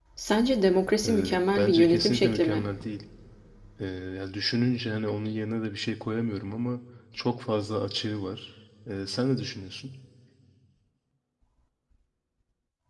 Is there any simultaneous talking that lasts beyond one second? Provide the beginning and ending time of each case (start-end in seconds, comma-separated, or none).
1.0-2.6